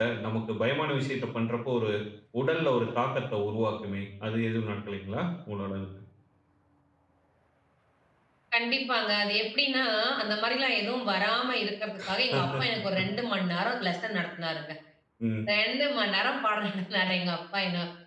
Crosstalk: none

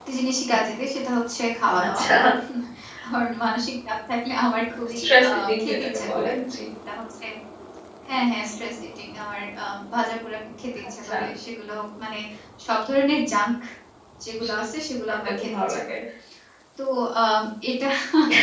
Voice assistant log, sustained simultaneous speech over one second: present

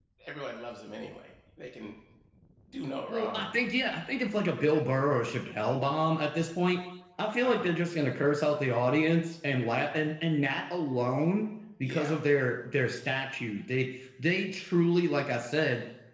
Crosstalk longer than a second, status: none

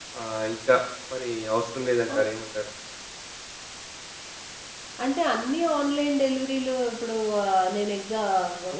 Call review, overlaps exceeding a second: none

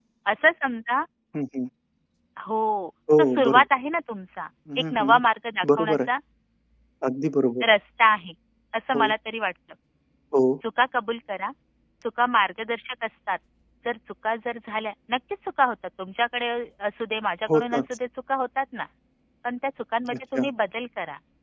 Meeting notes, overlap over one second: none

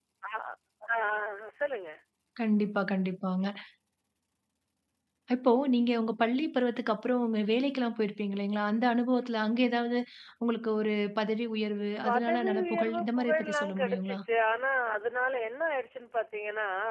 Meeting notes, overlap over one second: present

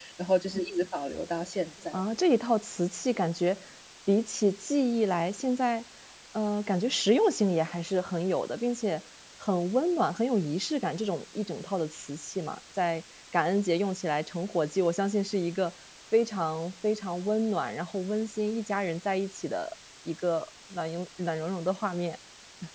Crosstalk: none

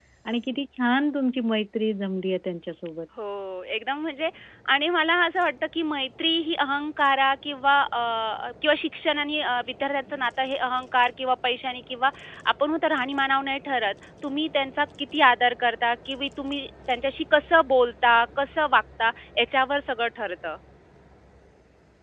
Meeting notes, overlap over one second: none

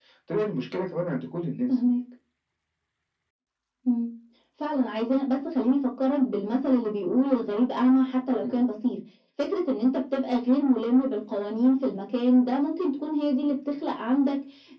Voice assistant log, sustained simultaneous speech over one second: none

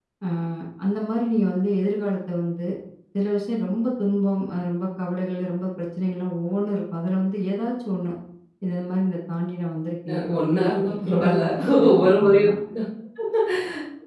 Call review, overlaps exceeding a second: present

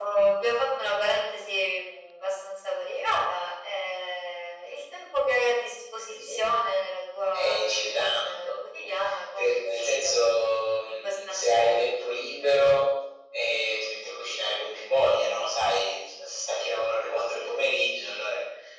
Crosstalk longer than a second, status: present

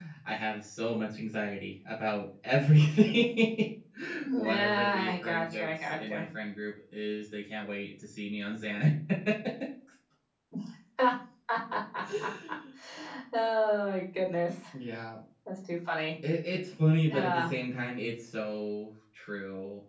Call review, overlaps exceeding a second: present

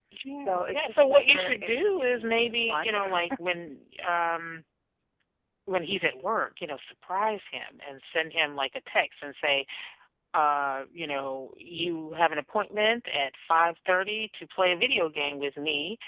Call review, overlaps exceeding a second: present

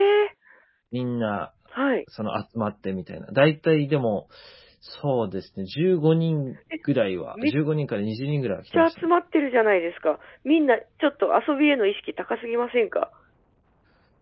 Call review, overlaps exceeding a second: none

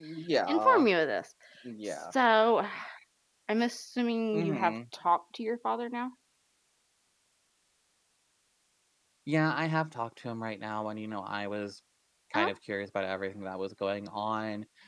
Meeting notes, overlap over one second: none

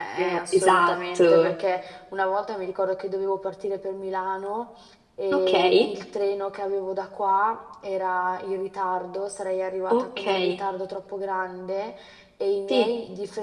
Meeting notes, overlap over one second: present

